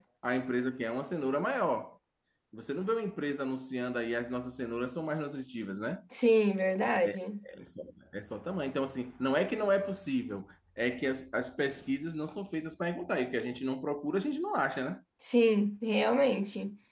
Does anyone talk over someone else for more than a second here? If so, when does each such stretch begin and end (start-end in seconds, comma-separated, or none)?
none